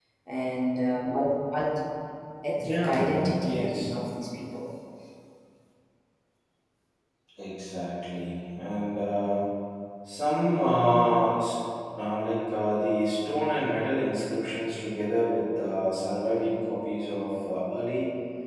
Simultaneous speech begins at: 2.6 s

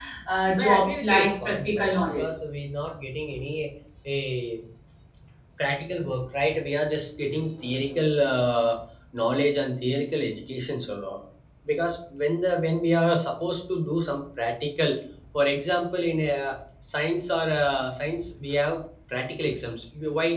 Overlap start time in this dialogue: 0.6 s

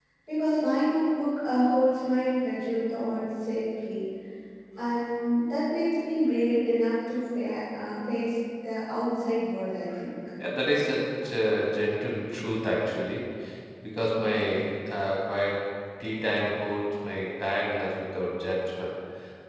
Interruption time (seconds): none

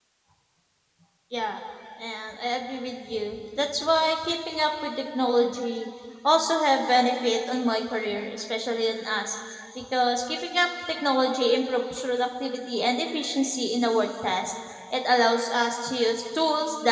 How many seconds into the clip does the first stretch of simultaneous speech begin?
none

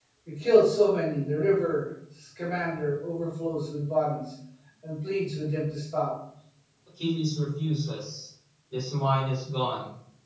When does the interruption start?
none

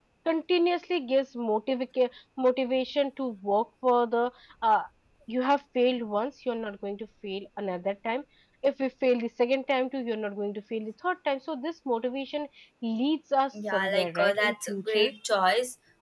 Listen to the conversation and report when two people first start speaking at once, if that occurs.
13.7 s

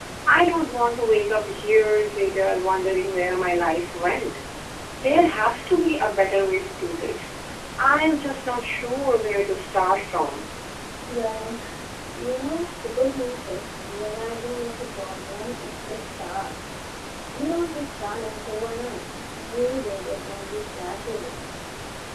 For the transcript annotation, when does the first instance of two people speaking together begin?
none

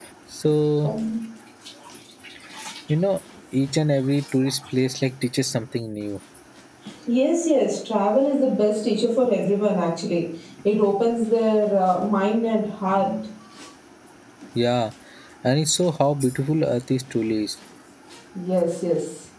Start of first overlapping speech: none

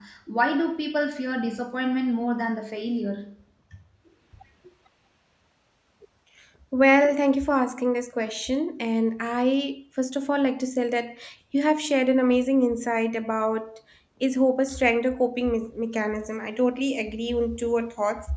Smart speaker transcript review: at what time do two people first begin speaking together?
none

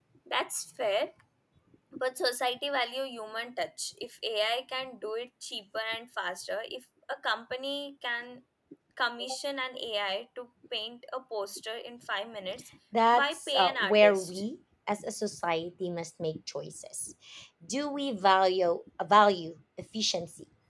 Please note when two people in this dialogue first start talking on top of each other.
13.1 s

